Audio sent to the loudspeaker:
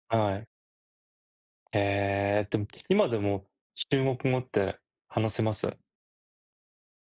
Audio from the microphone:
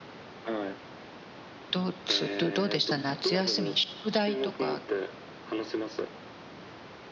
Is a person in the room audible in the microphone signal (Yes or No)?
Yes